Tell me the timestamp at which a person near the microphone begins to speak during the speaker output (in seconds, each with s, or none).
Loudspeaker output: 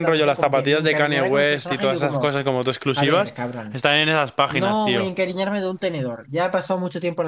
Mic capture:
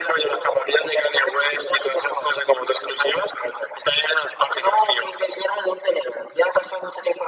none